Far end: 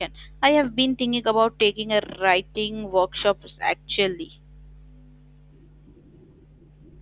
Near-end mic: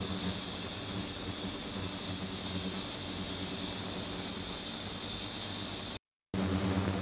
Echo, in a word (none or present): none